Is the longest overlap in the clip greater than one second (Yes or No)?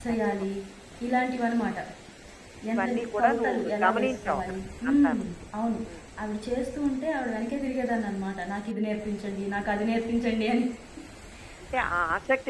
Yes